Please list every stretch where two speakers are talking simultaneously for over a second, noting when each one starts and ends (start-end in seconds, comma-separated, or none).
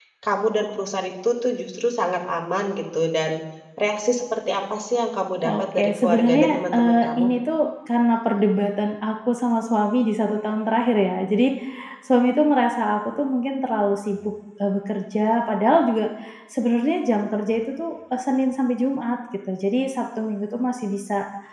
5.4-7.2